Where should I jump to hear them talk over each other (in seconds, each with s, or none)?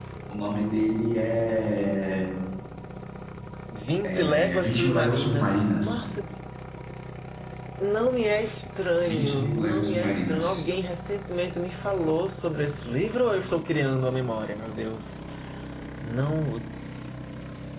4.0 s